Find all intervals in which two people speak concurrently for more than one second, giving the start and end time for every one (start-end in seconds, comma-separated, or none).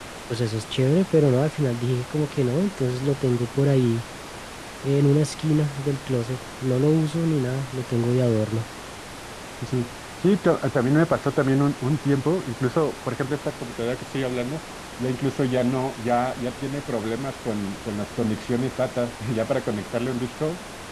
none